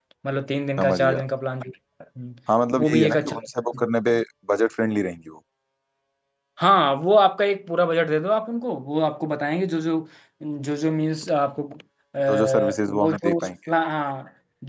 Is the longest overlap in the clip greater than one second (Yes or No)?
Yes